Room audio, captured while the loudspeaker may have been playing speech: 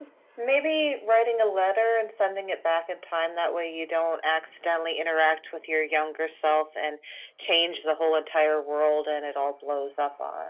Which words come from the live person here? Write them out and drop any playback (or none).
none